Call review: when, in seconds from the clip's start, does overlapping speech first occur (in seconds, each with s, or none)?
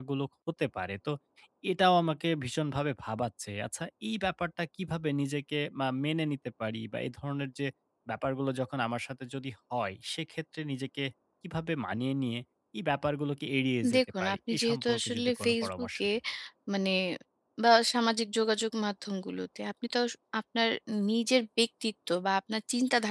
13.8 s